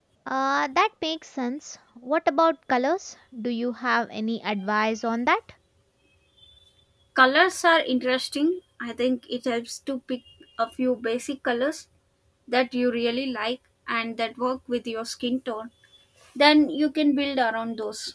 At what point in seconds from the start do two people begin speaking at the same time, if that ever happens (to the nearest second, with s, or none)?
none